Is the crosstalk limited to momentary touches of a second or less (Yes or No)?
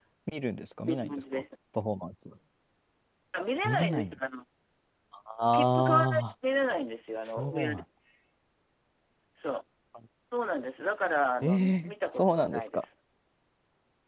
No